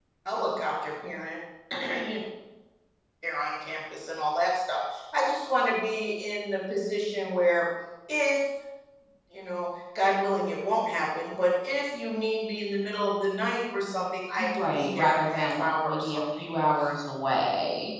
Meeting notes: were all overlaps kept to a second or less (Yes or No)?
No